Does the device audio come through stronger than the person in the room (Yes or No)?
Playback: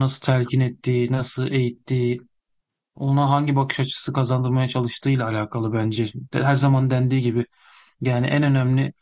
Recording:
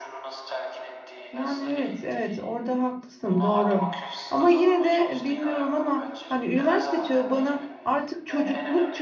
No